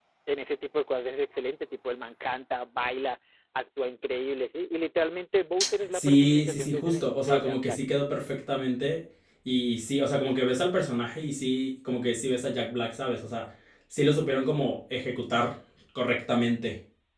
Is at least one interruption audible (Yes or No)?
Yes